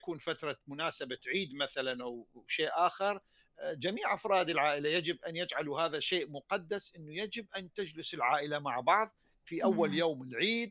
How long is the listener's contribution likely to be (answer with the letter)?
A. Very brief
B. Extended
A